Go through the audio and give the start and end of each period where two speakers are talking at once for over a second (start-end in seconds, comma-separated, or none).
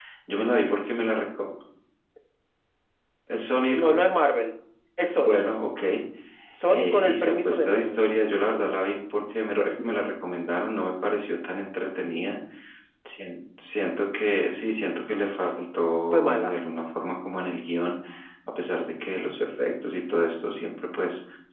6.7-8.0